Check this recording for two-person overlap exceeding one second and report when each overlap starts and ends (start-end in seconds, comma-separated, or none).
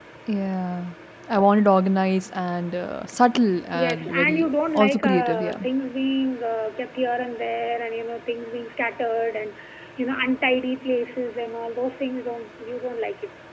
3.7-5.6